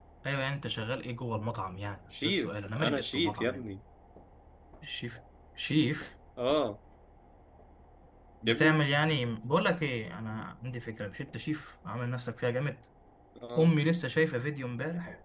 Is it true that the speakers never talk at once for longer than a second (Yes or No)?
No